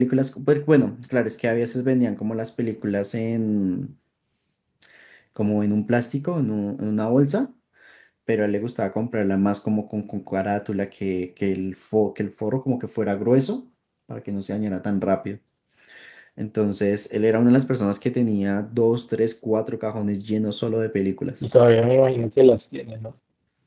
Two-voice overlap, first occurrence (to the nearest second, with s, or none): none